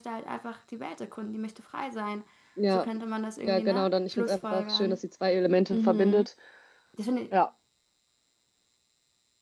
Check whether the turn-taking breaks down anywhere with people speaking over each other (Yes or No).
Yes